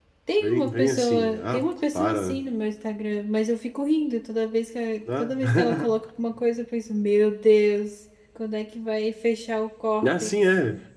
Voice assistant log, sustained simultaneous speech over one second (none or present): present